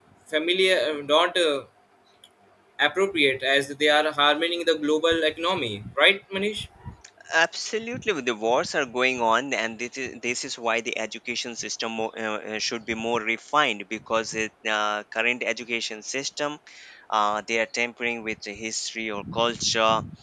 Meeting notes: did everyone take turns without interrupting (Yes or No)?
Yes